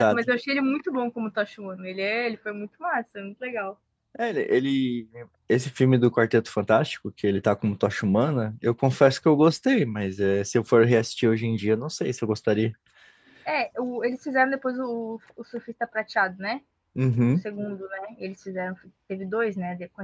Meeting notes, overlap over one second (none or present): none